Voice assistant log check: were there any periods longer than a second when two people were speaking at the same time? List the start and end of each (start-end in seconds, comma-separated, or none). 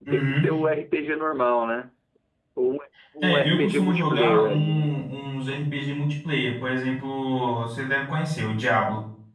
3.2-4.9